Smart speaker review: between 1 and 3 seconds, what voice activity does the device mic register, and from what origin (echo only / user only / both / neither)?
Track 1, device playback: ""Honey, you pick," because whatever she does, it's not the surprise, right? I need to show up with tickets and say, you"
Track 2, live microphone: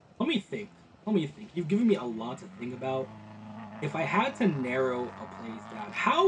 user only